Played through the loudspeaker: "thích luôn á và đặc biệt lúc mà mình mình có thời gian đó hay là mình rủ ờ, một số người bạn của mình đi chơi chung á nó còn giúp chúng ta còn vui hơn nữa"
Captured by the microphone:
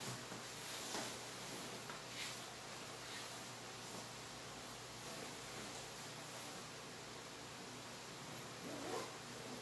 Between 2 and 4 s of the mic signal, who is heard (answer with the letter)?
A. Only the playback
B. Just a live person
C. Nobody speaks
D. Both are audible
C